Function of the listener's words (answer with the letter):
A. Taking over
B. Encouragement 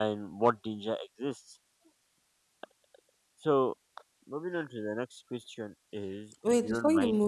A